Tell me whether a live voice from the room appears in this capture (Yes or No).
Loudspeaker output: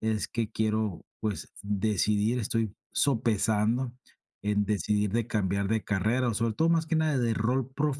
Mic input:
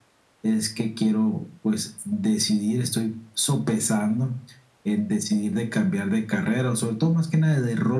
No